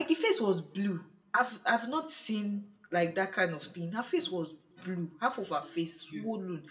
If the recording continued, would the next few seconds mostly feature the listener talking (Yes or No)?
No